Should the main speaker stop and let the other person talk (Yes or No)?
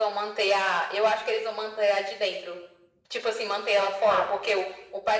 No